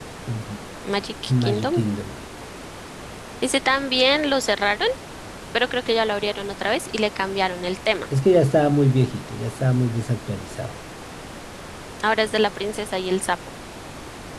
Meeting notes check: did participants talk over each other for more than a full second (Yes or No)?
No